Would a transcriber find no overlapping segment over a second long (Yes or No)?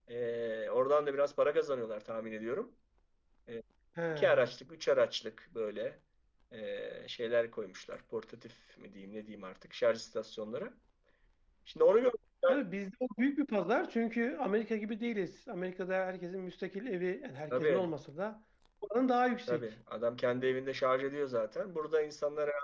Yes